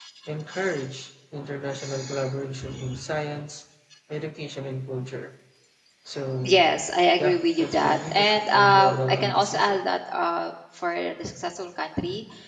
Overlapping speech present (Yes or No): Yes